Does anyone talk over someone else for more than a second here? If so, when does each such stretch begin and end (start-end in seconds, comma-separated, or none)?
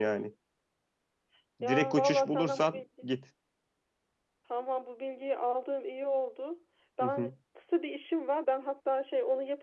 1.7-3.1